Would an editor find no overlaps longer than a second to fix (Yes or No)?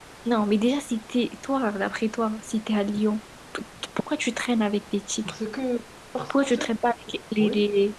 Yes